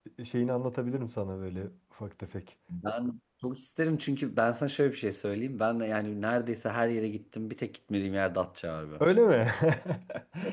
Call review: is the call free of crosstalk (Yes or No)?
Yes